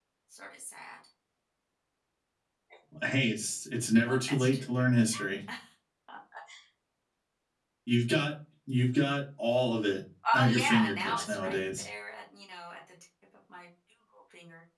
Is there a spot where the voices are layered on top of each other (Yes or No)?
Yes